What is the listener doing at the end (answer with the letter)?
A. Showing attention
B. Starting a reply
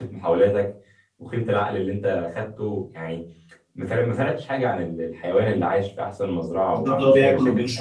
B